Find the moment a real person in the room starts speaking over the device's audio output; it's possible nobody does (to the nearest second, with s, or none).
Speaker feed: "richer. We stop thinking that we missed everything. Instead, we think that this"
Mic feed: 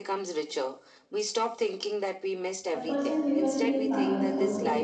3 s